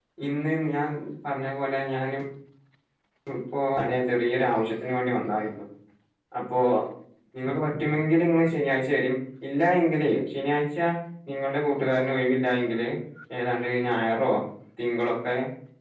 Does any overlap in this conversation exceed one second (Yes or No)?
No